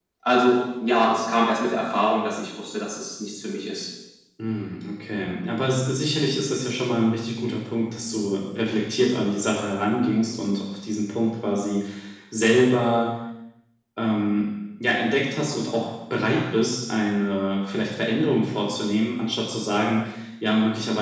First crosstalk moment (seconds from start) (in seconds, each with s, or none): none